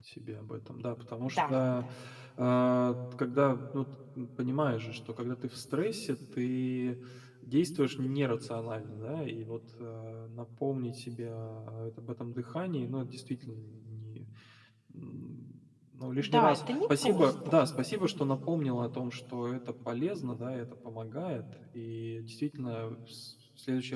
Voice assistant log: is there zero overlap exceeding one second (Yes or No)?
No